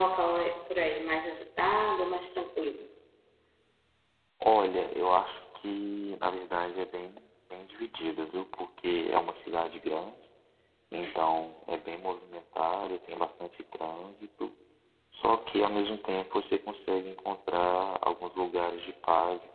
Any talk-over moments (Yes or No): No